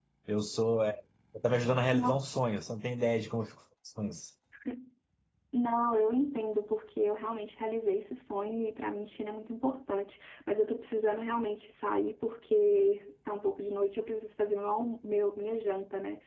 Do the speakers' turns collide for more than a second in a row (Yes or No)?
No